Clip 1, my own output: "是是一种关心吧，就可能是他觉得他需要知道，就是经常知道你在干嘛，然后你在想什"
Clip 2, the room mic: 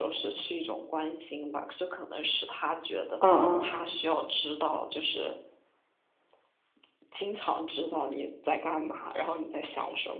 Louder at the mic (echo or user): user